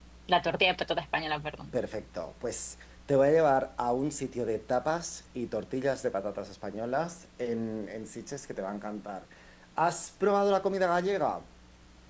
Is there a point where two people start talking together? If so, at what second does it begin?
none

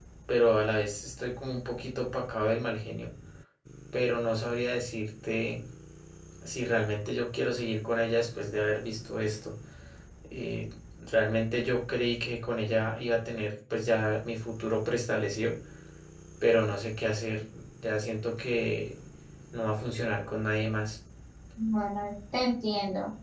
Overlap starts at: none

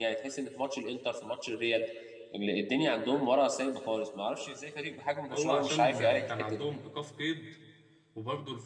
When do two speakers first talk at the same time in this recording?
5 s

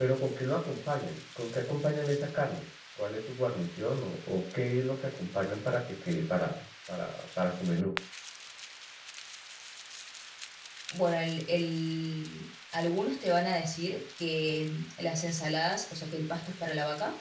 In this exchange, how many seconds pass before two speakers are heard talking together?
none

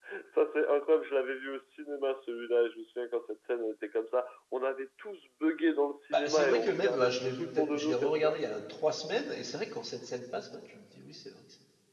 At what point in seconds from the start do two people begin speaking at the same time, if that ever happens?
6 s

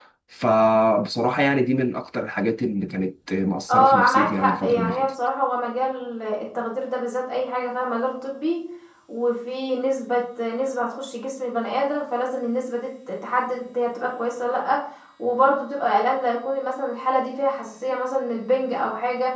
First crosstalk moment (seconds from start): 4 s

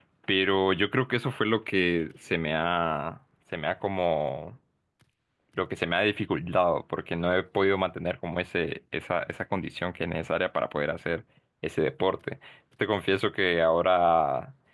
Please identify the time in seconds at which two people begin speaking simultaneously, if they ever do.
none

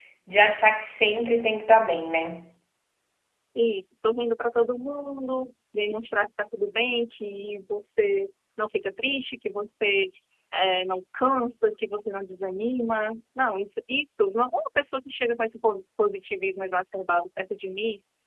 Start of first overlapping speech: none

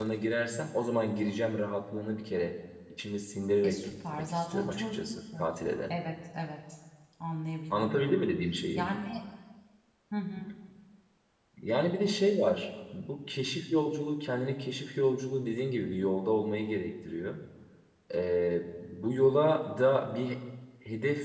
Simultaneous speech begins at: 4 s

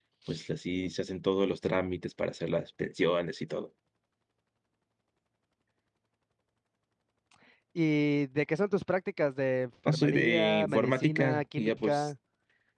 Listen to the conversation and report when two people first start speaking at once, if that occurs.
10 s

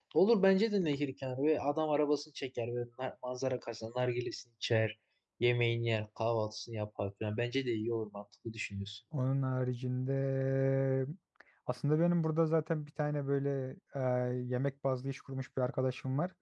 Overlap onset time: none

